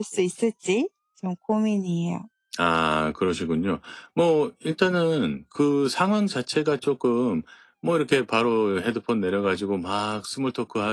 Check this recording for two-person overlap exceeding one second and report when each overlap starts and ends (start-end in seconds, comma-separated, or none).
none